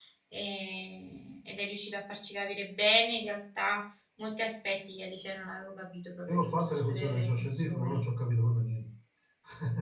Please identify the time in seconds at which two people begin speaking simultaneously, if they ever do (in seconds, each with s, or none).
6.3 s